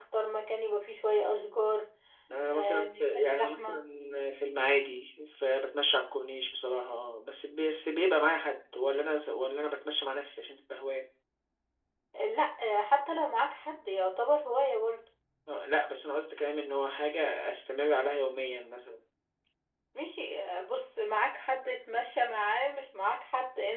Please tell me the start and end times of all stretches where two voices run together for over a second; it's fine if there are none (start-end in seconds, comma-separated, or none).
2.5-3.8